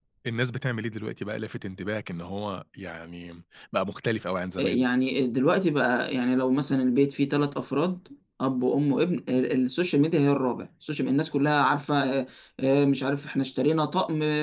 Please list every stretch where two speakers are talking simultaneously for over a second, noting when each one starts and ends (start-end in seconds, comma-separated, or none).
none